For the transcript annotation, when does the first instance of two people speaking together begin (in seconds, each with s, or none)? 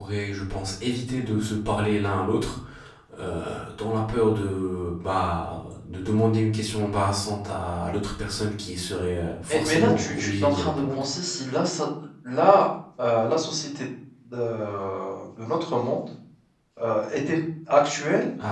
9.5 s